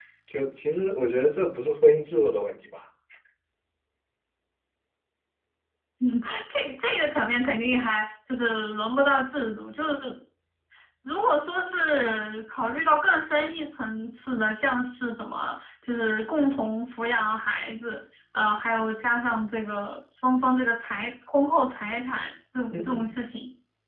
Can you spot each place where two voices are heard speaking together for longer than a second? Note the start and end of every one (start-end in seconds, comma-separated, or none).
none